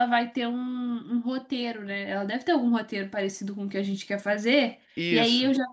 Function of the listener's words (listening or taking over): listening